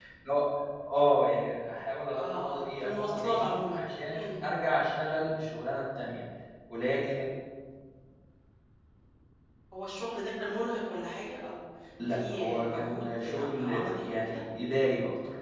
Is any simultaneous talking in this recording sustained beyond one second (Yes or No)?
Yes